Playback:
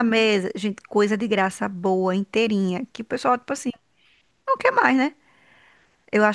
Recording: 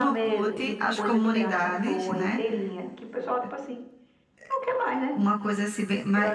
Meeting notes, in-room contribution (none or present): present